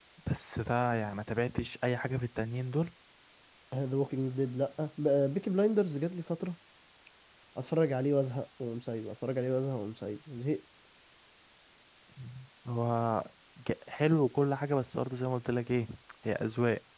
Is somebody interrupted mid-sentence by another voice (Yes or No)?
No